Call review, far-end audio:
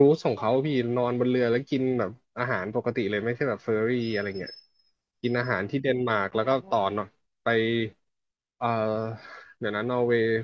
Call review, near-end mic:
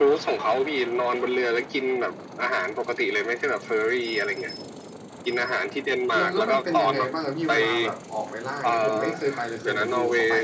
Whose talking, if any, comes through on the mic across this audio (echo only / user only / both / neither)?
both